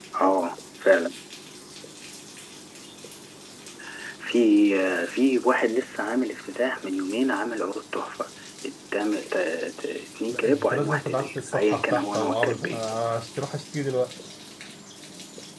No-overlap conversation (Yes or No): No